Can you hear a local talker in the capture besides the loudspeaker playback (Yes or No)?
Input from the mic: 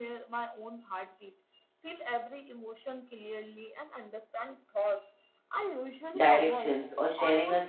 Yes